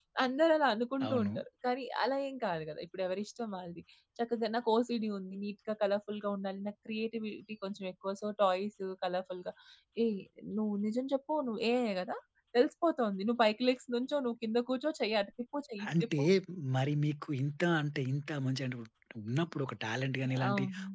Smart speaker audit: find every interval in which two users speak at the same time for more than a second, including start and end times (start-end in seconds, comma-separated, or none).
none